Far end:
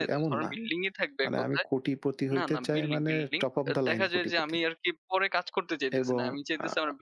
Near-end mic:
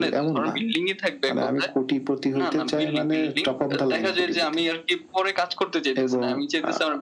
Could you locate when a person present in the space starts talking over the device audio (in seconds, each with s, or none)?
none